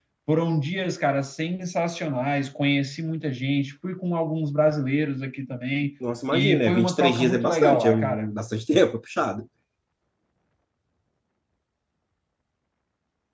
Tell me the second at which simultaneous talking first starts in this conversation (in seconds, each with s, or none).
6.3 s